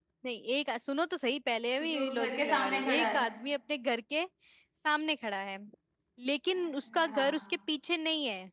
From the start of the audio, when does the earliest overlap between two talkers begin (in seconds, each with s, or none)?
1.8 s